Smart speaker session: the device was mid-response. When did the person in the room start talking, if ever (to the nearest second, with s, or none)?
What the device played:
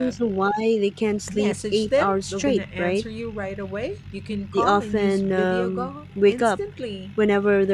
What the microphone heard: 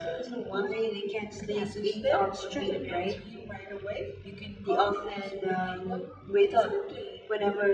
none